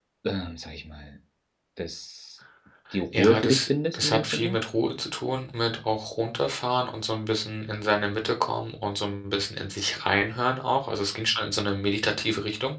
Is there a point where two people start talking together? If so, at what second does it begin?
3 s

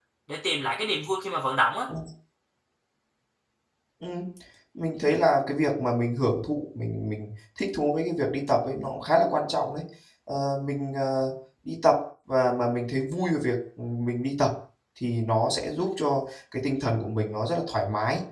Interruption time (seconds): none

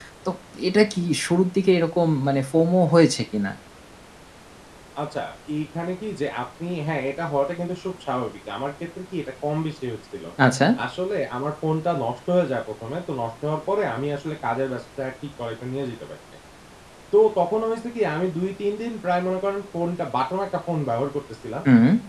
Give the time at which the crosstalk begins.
none

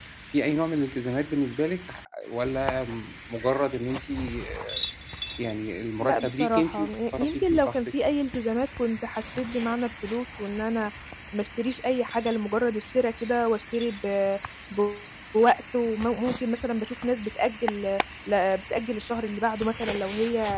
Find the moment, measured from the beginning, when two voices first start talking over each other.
6 s

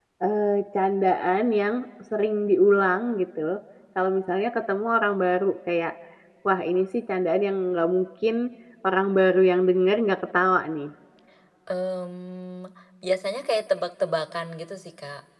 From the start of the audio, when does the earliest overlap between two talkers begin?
none

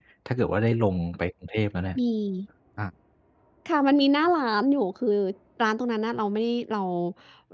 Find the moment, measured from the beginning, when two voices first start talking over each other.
none

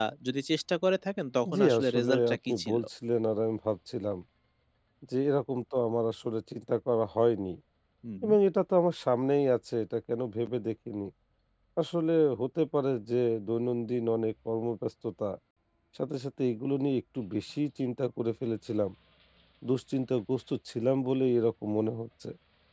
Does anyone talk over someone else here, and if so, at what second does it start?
1 s

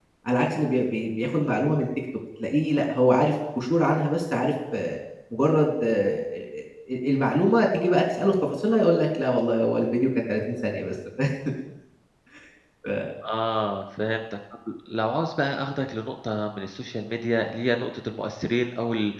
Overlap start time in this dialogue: none

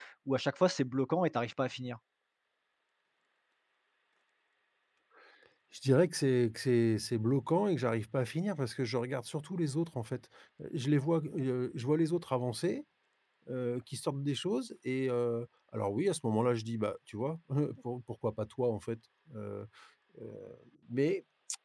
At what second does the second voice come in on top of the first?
none

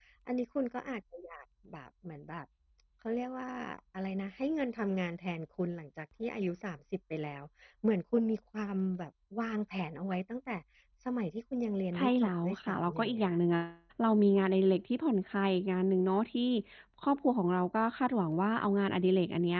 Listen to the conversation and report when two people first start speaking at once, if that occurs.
12 s

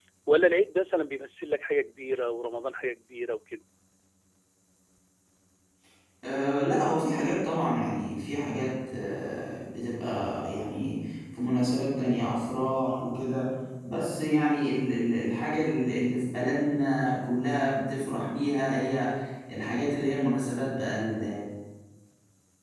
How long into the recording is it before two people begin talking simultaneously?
none

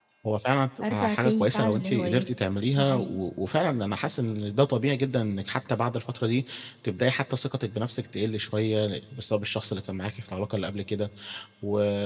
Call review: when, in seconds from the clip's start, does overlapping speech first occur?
1 s

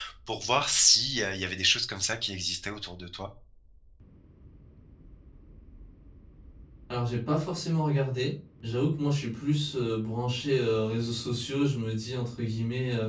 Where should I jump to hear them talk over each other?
none

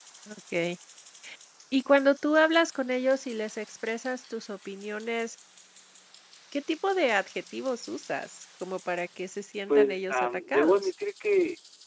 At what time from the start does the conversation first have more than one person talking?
10 s

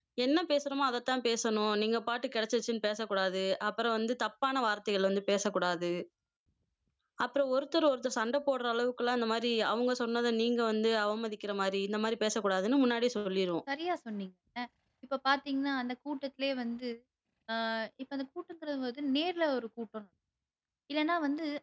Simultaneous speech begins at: none

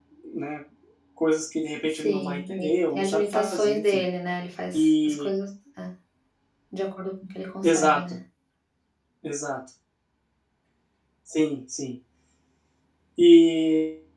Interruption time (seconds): 2 s

